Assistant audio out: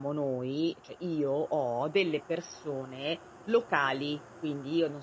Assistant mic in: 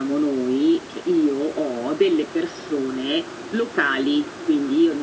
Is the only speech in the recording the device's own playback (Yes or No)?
Yes